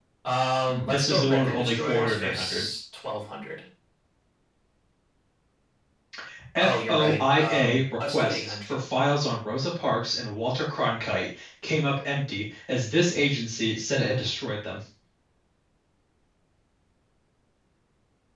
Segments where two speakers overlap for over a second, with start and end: 0.7-2.7, 6.6-8.8

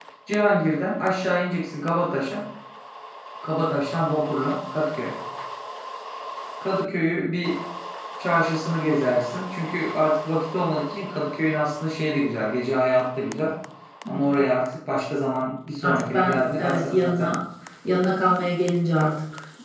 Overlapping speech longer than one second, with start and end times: 15.8-17.3

